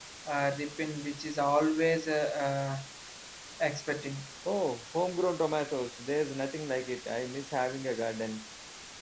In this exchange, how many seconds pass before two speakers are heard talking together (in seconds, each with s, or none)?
none